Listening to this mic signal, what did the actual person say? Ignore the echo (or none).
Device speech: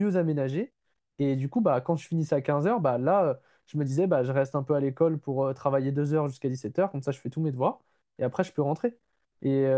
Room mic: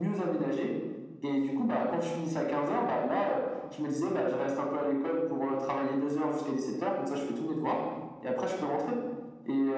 none